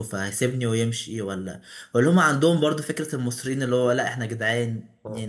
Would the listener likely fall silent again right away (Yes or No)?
Yes